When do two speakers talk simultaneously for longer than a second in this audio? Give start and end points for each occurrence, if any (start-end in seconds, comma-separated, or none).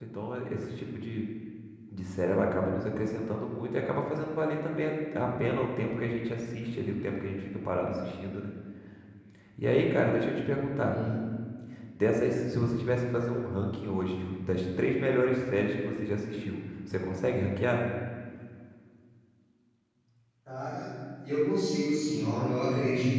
none